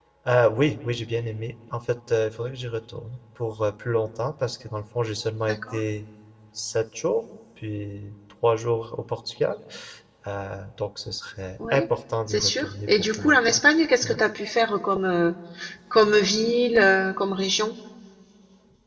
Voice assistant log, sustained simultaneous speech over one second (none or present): present